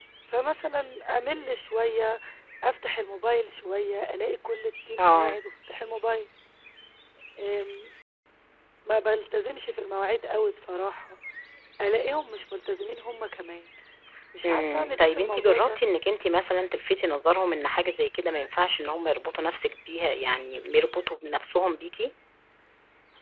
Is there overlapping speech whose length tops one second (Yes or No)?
Yes